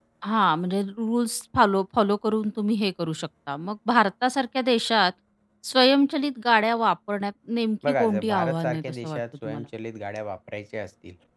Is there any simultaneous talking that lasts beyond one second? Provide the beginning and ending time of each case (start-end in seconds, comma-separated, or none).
7.9-9.6